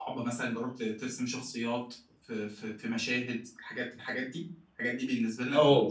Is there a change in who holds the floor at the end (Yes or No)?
Yes